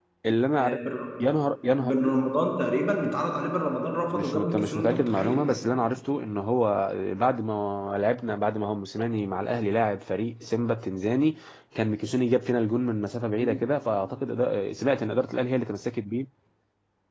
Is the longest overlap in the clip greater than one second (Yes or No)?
Yes